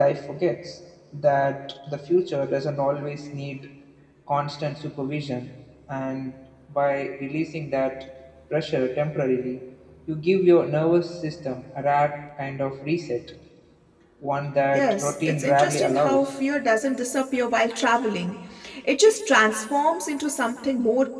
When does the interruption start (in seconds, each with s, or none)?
14.7 s